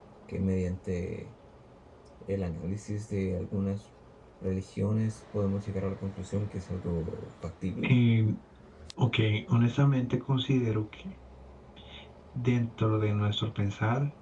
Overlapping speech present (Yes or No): No